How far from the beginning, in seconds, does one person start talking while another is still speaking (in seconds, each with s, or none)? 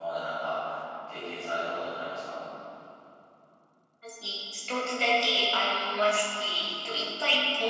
none